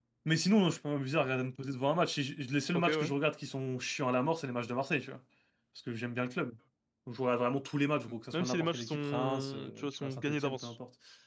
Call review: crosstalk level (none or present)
present